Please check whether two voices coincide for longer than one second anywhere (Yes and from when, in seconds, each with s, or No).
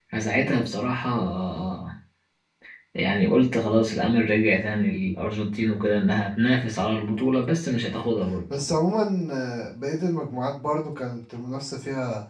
No